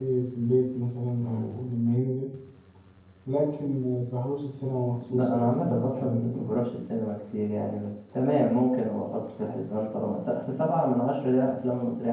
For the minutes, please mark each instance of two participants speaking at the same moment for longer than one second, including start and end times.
5.1-6.5

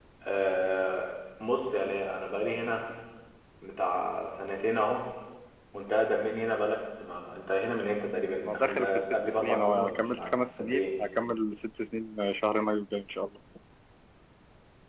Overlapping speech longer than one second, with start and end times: 8.4-10.9

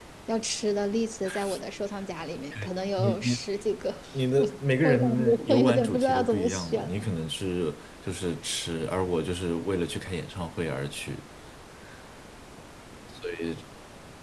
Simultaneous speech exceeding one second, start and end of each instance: 4.8-6.9

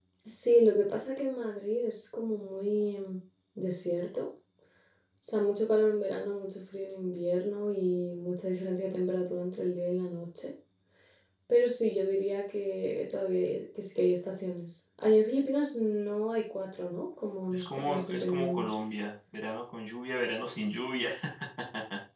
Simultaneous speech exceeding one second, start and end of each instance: 17.5-18.7

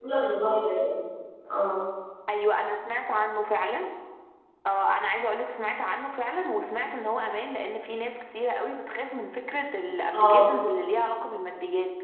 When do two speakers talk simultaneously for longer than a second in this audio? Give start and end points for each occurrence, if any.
none

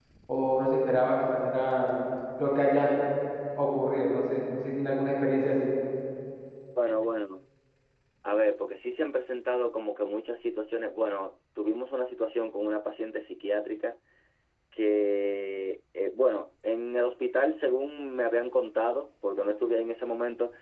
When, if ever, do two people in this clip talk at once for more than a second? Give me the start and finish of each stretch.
none

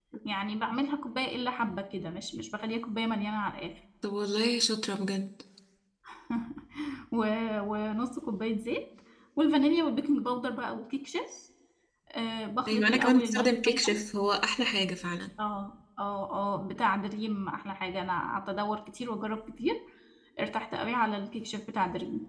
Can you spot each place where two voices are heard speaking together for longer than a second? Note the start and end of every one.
12.7-14.0

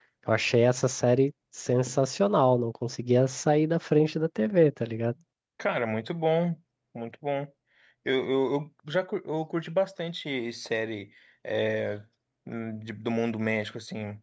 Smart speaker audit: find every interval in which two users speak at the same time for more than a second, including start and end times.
none

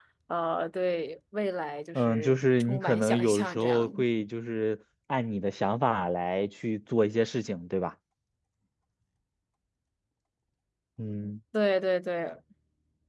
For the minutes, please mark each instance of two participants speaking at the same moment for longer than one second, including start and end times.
1.9-4.0

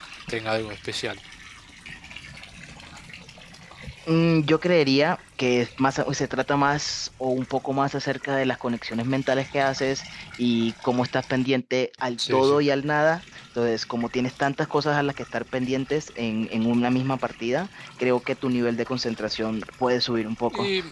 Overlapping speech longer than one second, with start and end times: none

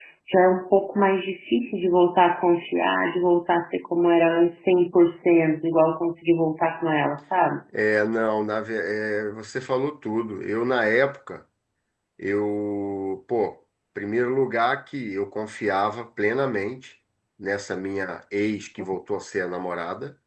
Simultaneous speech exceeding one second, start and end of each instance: none

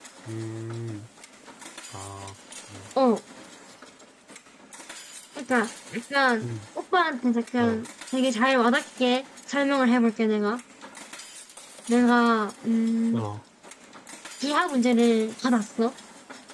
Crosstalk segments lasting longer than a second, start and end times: none

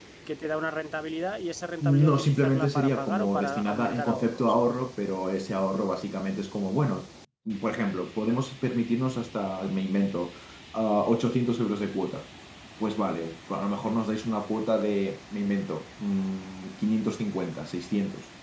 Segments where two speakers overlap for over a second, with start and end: 1.8-4.5

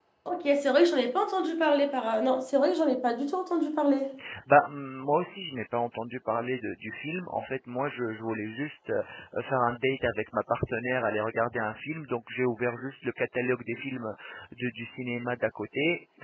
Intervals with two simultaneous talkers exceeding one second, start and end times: none

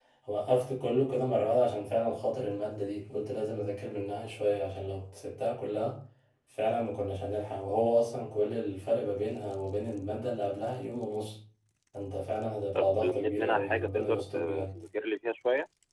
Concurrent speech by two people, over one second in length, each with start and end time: 12.8-14.7

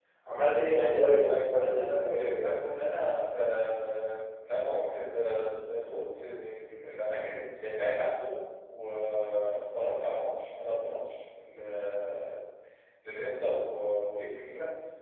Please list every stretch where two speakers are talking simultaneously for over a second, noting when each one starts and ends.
0.7-2.5

